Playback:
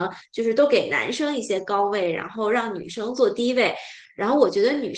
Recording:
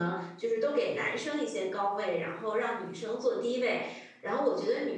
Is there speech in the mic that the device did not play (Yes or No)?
No